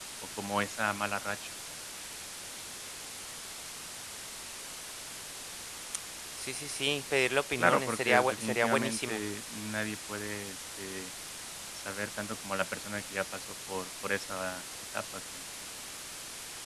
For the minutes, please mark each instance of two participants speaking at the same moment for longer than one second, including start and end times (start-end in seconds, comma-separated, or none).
7.6-9.2